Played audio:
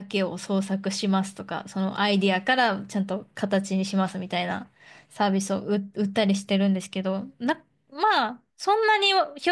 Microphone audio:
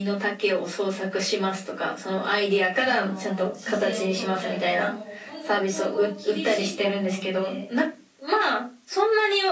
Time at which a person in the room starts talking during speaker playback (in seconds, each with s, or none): 2.8 s